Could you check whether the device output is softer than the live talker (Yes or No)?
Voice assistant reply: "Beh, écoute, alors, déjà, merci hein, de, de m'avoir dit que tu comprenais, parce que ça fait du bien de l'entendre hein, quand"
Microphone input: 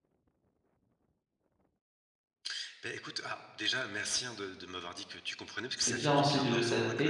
Yes